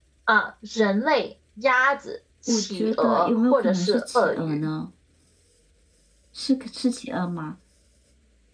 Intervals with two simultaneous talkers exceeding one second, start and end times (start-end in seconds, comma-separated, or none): 2.5-4.6